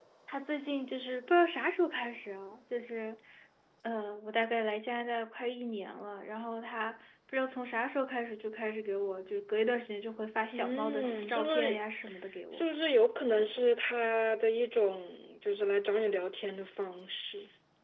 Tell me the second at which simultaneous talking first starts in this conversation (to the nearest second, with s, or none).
11 s